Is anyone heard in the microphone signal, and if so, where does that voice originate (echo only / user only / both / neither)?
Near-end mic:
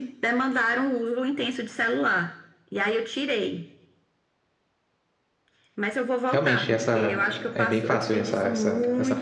both